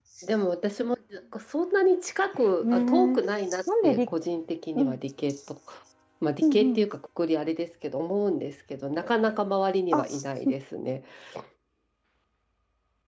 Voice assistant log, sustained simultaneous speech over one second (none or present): none